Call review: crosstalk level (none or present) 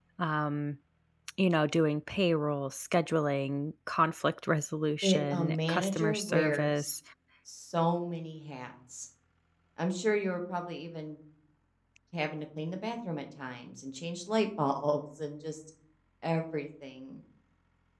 present